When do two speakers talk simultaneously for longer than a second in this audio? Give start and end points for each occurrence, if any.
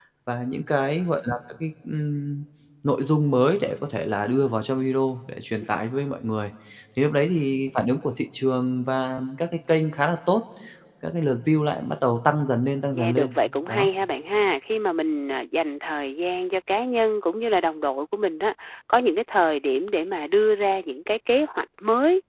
none

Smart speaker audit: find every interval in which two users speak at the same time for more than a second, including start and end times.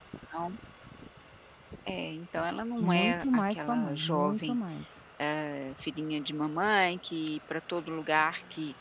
2.8-4.6

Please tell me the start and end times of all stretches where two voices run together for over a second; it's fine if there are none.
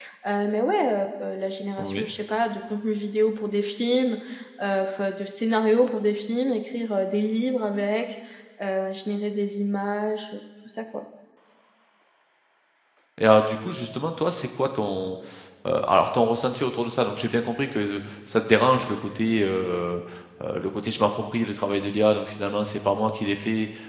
none

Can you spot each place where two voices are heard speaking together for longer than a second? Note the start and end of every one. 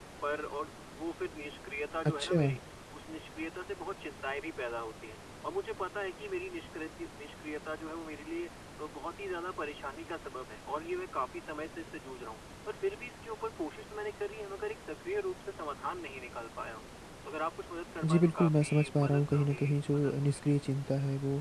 18.0-20.1

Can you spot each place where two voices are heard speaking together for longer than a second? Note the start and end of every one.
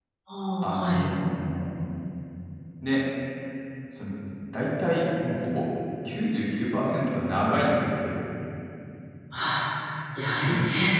none

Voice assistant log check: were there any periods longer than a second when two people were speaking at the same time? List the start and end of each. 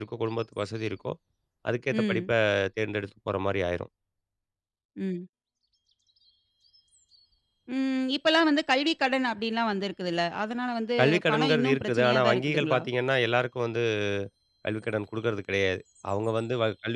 11.0-12.8

